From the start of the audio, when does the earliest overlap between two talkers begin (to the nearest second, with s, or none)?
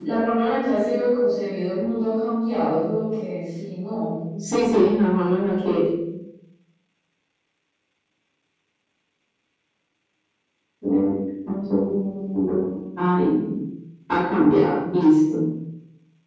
none